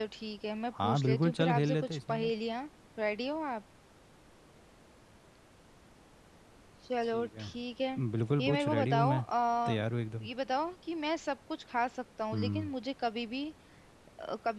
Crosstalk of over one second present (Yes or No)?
Yes